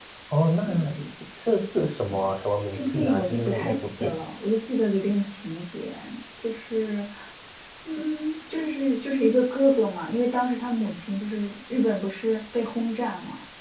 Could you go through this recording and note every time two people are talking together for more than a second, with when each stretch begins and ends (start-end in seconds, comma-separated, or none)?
2.7-4.2